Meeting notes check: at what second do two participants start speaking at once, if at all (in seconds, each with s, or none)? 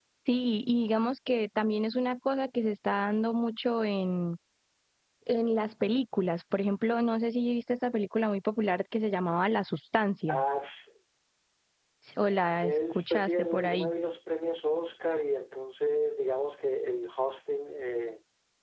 12.6 s